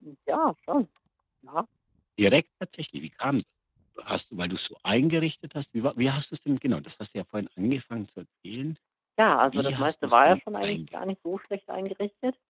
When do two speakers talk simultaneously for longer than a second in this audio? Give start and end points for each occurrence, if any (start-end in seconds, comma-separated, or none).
9.4-10.8